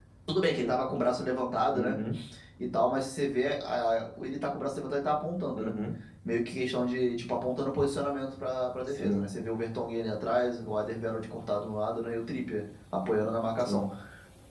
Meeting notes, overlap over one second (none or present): none